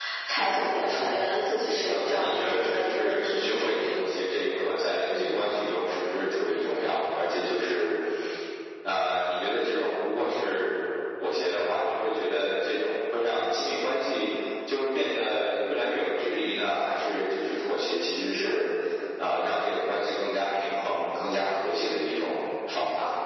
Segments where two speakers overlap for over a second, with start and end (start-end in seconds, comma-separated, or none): 1.8-3.8